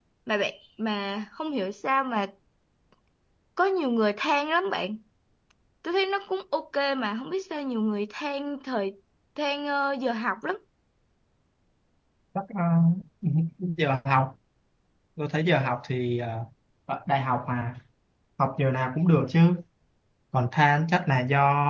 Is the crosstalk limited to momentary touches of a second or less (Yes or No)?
Yes